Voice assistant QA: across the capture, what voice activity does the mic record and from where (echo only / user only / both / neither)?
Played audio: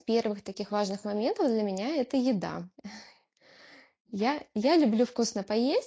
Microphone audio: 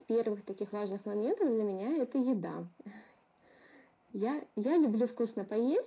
echo only